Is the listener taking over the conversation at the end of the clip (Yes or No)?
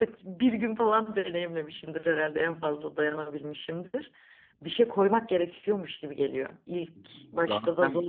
No